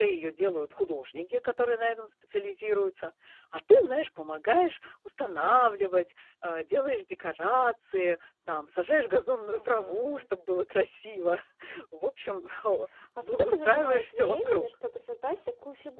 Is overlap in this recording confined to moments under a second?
No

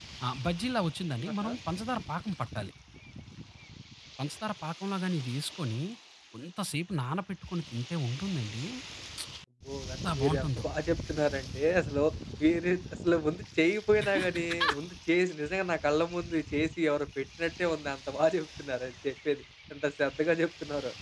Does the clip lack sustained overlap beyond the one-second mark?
Yes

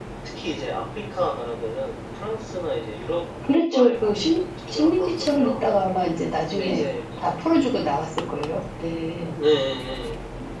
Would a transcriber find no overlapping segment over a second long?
No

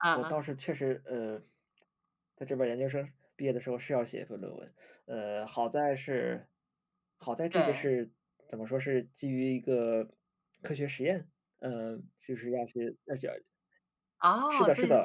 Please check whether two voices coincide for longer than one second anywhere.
No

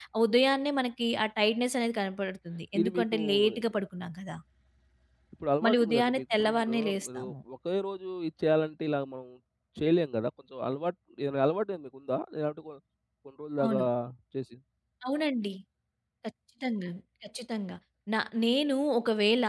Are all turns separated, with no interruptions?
No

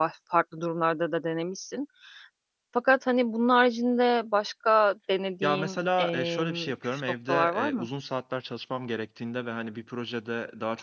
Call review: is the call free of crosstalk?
No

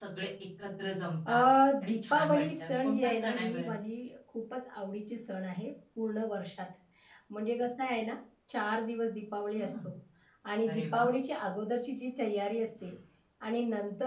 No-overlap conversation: No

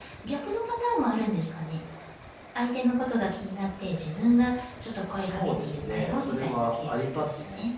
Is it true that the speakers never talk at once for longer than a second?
No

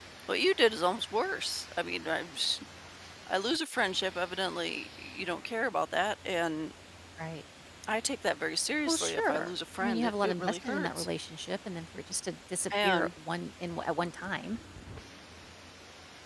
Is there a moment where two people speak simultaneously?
Yes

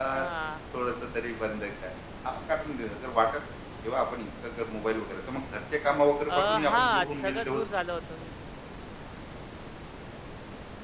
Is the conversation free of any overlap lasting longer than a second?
No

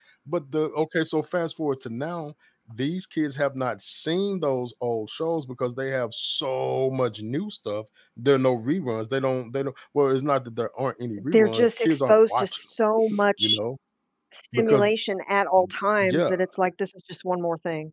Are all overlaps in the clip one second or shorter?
No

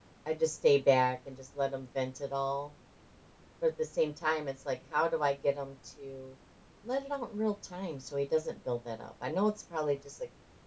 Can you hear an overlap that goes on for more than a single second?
No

